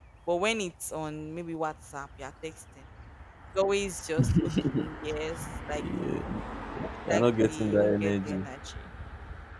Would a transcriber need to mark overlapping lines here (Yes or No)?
Yes